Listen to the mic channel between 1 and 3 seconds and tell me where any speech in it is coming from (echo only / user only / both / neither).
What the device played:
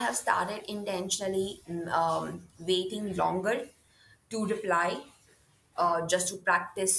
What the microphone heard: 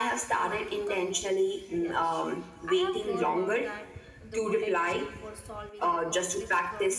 both